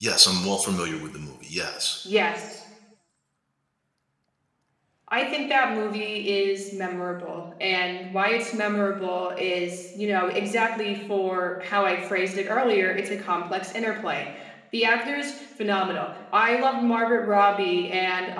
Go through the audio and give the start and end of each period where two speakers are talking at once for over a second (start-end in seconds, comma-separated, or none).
none